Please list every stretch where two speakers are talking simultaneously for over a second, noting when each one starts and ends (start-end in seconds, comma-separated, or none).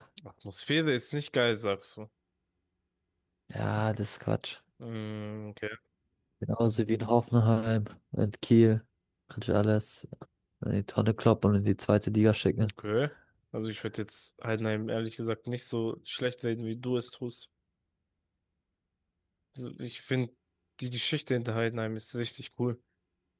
none